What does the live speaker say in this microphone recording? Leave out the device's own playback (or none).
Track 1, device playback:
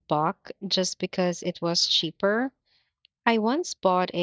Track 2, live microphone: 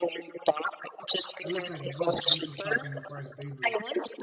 I look like a ghost. Makeup shopping requires bravery.